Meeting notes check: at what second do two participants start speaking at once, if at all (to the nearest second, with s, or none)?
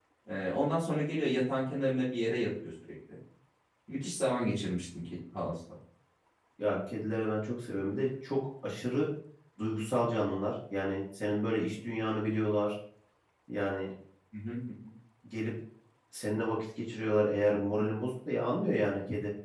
none